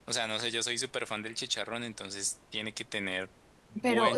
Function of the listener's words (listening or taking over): taking over